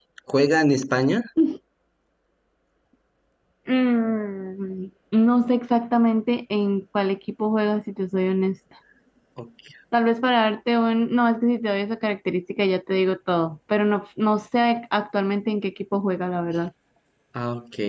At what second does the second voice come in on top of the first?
none

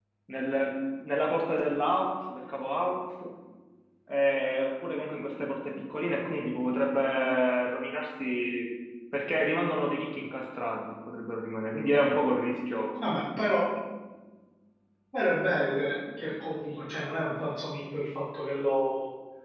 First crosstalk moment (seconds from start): none

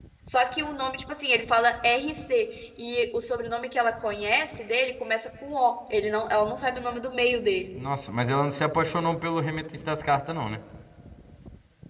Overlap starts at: none

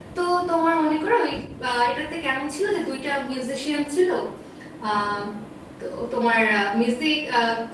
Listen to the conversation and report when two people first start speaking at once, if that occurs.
none

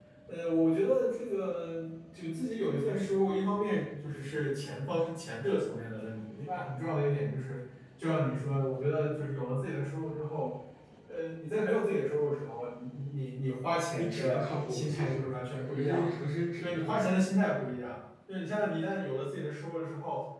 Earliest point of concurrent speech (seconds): 13.9 s

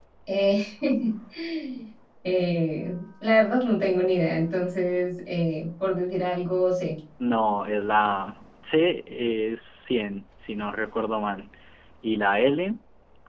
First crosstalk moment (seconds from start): none

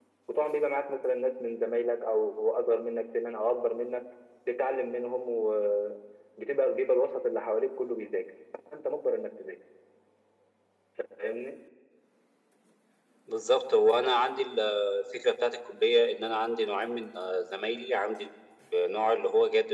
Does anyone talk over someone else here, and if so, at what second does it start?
none

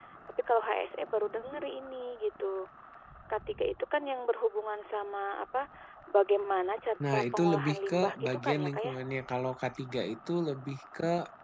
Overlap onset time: 7.0 s

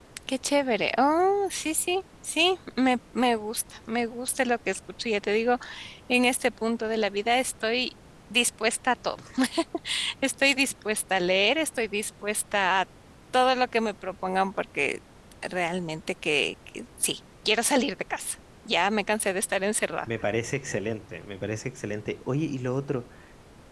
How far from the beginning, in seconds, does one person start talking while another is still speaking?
none

